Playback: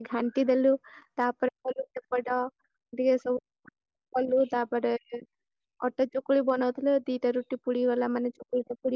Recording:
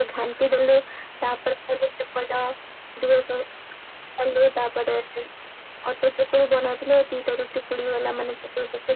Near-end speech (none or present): none